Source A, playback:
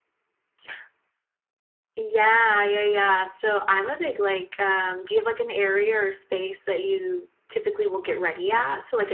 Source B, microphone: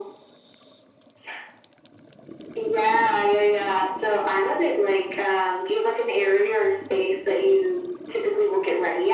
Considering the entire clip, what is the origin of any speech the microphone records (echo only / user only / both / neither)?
echo only